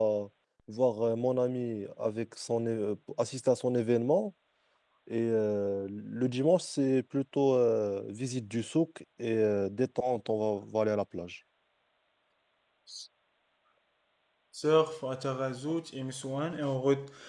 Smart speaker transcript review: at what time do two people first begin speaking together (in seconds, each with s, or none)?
none